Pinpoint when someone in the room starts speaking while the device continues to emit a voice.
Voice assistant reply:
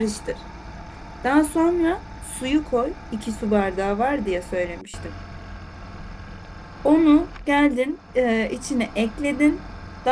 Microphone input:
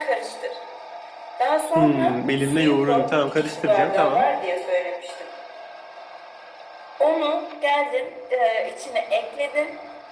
1.8 s

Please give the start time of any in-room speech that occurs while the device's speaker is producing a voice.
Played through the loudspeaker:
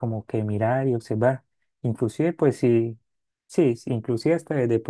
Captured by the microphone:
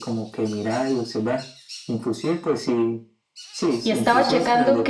3.8 s

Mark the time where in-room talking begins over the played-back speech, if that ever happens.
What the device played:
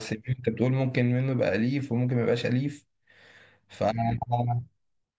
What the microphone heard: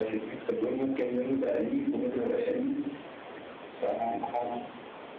none

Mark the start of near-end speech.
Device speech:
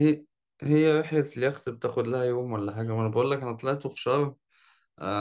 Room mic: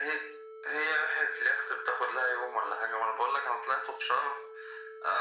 none

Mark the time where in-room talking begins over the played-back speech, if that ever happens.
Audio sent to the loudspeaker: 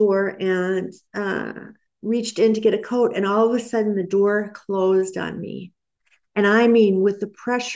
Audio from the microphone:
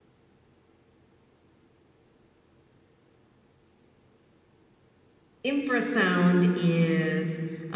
5.4 s

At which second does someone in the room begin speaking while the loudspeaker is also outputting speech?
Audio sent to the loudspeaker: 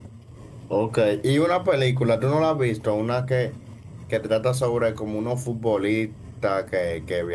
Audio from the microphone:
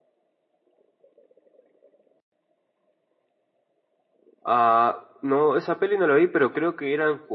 4.4 s

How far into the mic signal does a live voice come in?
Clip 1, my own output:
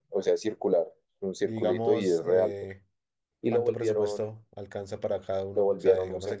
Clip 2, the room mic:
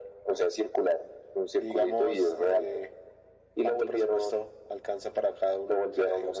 none

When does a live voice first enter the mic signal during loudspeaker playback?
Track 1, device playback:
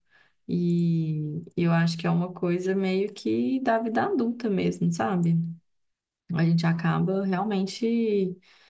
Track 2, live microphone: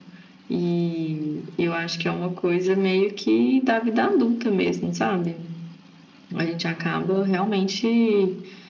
none

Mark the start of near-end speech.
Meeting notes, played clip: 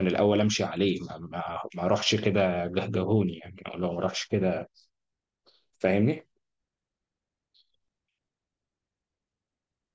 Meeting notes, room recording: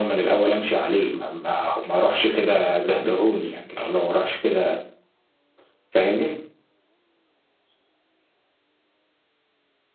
none

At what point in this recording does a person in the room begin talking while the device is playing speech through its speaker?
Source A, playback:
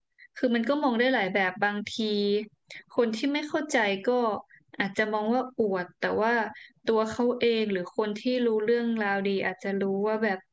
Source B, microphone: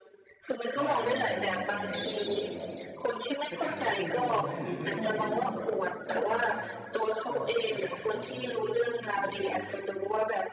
0.8 s

